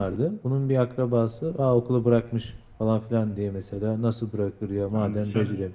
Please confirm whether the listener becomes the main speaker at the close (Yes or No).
No